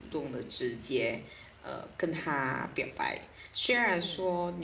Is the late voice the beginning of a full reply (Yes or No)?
No